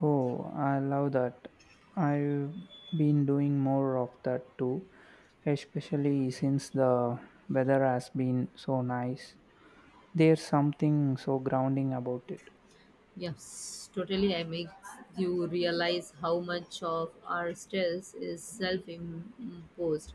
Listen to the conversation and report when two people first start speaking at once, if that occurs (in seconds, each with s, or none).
none